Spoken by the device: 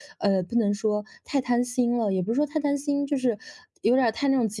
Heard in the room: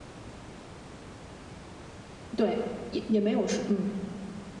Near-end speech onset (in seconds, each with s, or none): 2.4 s